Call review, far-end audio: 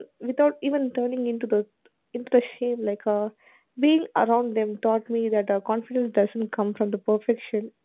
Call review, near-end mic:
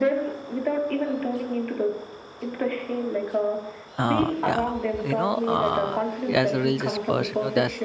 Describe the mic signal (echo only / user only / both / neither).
both